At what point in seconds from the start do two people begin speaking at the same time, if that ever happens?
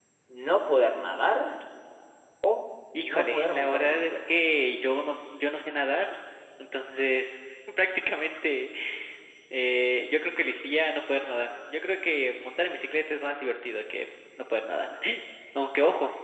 3.0 s

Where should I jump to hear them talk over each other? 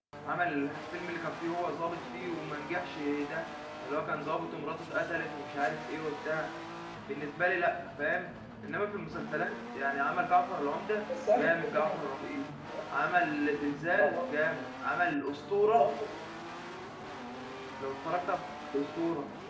11.1 s

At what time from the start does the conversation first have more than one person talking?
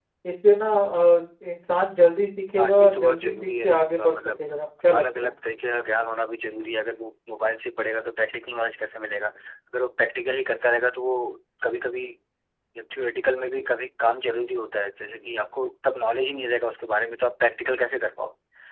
2.6 s

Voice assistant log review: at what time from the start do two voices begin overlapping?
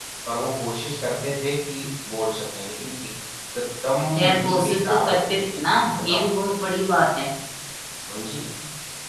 4.2 s

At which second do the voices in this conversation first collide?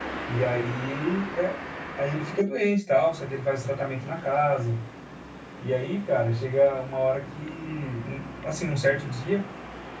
none

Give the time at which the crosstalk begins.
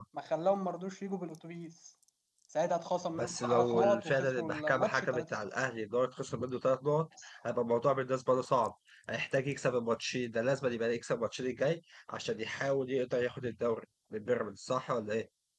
3.2 s

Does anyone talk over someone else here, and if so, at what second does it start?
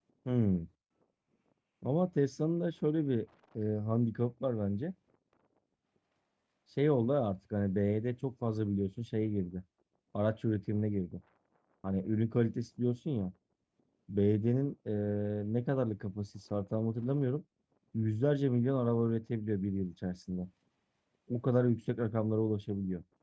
none

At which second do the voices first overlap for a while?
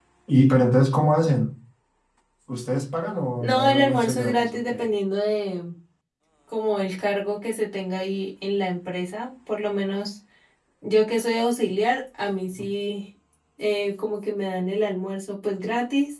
3.4 s

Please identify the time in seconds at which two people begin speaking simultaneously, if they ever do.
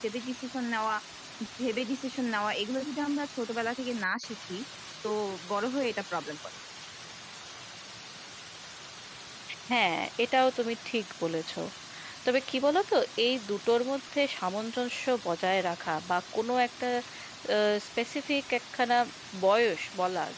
none

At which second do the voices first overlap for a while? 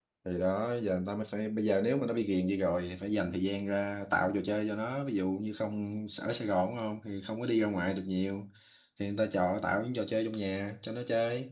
none

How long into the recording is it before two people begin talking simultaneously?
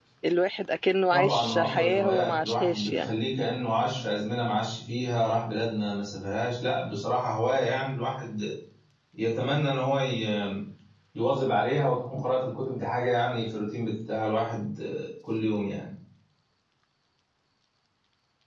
1.1 s

